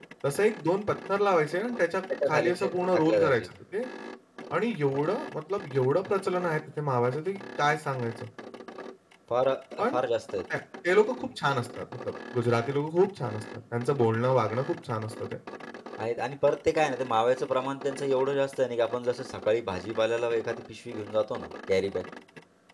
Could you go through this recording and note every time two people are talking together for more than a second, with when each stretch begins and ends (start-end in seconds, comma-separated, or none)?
2.3-3.5